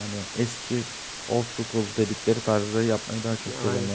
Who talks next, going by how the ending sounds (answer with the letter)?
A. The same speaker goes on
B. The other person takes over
A